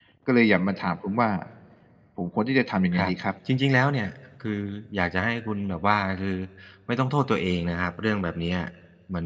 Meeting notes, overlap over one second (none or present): none